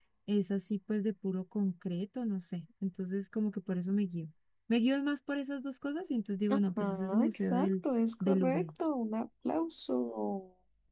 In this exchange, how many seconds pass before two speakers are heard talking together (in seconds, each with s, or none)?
6.5 s